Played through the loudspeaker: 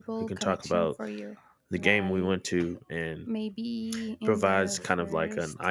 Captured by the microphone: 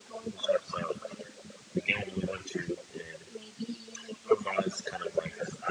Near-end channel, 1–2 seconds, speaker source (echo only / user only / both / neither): echo only